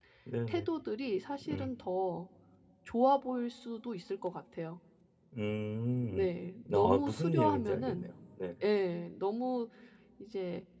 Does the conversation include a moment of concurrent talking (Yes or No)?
Yes